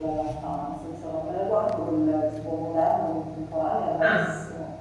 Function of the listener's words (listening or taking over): listening